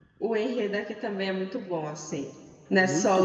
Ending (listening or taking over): taking over